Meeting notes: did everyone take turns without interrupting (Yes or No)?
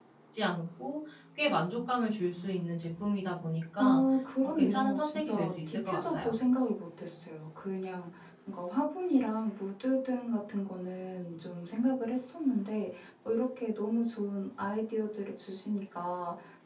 No